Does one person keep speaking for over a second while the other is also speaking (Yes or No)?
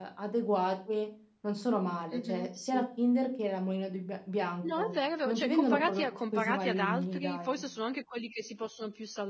Yes